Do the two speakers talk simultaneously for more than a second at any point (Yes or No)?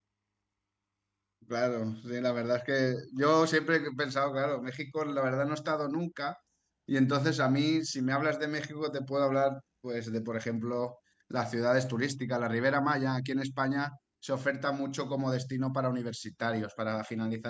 No